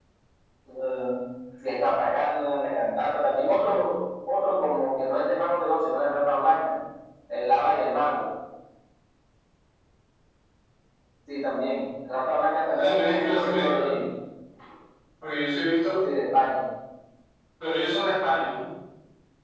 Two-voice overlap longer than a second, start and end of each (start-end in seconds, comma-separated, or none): 12.7-13.9